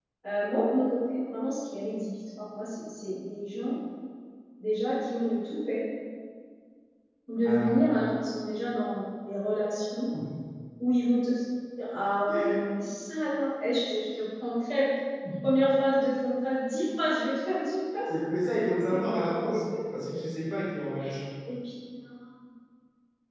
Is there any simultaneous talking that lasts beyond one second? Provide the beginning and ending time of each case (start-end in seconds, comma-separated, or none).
none